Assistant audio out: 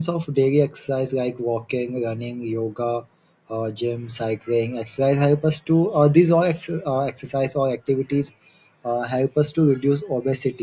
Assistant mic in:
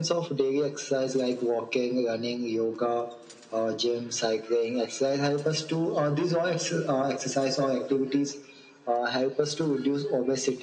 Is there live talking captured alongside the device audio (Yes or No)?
No